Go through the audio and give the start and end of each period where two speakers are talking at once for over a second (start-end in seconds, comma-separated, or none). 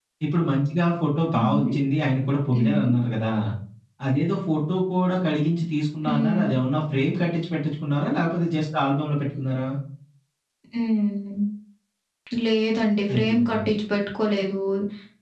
none